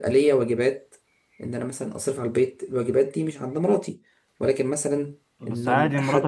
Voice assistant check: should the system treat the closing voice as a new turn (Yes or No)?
Yes